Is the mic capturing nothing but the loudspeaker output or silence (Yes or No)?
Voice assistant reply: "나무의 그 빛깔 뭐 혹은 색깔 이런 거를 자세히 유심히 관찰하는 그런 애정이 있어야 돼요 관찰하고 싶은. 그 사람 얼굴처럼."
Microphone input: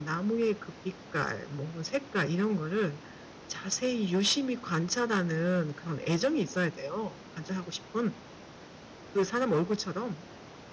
Yes